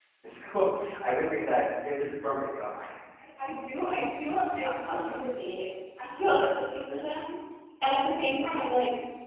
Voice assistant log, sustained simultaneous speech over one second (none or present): none